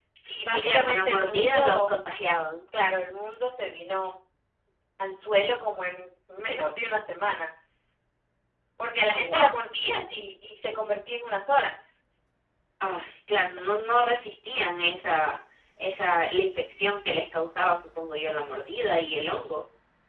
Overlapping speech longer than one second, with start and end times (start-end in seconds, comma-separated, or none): 0.5-2.0